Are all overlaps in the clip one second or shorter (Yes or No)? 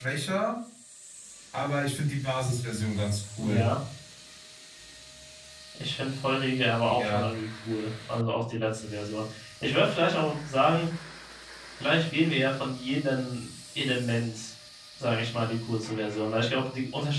Yes